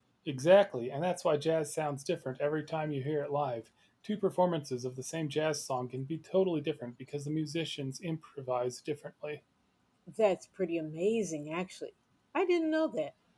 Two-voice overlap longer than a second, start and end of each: none

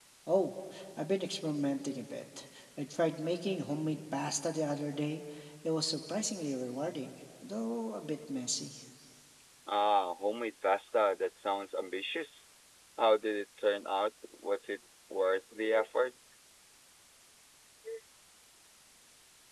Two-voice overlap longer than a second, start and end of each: none

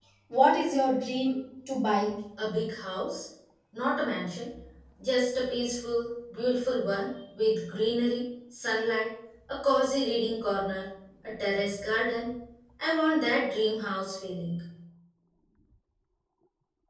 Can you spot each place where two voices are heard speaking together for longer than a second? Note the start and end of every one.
none

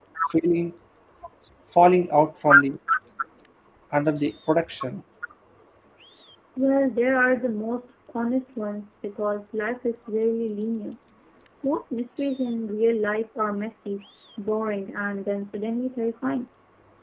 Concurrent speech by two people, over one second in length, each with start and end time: none

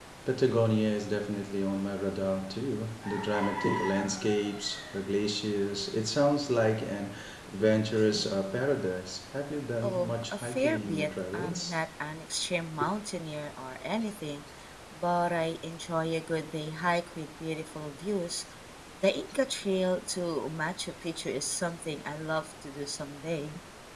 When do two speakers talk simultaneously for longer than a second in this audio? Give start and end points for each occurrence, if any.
9.8-11.8

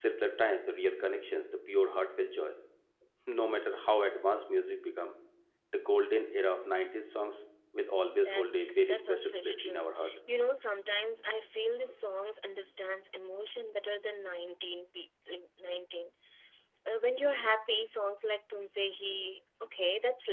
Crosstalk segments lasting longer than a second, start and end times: 8.2-9.9

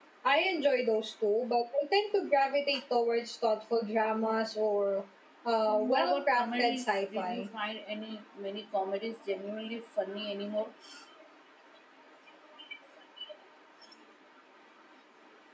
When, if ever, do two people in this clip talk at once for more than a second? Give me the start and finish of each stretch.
5.7-7.5

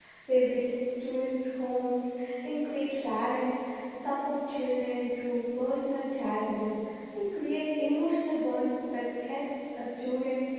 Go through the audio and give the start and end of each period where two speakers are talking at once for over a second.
none

